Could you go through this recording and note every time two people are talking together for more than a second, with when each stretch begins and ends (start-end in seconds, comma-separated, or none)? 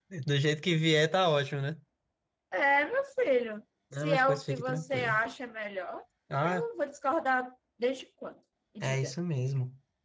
4.0-5.2